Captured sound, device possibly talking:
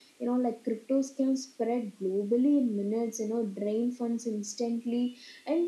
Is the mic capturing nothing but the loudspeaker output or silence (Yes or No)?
Yes